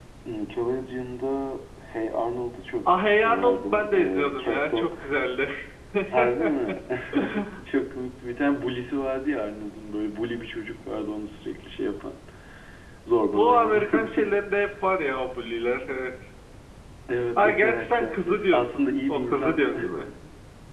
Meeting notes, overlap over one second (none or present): present